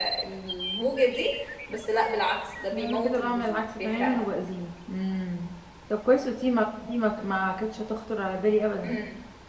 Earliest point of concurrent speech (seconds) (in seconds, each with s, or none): 2.7 s